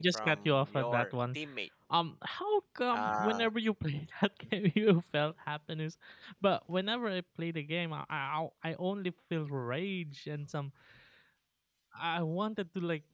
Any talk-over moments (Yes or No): Yes